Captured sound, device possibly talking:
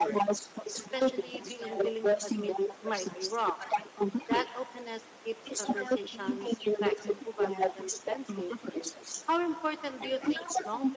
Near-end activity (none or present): present